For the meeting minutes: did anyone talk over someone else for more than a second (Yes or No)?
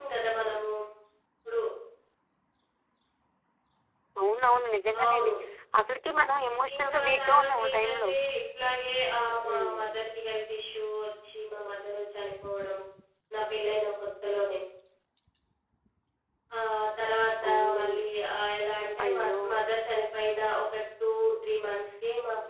Yes